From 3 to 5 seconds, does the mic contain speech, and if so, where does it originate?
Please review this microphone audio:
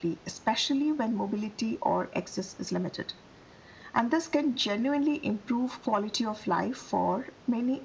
echo only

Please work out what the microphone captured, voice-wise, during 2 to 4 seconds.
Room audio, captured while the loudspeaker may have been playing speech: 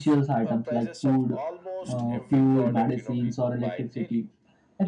both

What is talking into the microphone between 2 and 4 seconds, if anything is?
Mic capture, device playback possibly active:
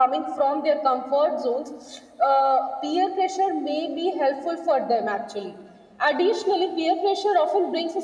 echo only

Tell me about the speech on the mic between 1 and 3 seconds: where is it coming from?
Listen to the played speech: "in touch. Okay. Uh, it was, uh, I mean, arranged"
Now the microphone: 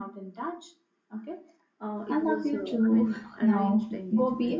both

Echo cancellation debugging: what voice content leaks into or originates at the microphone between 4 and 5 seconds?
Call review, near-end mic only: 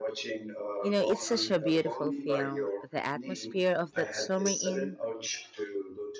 both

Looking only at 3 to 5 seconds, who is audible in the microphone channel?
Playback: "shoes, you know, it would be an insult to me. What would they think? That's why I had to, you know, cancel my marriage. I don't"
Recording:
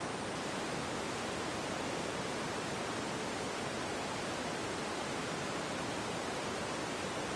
neither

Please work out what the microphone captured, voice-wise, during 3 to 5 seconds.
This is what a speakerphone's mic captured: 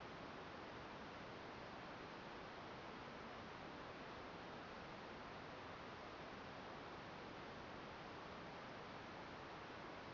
neither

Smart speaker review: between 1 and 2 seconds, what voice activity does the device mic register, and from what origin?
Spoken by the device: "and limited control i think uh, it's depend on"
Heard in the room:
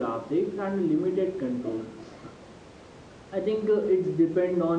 echo only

